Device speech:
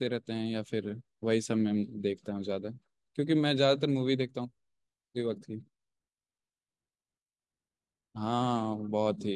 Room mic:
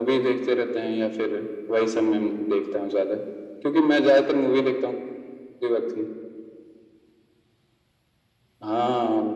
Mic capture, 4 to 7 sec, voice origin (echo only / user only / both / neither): echo only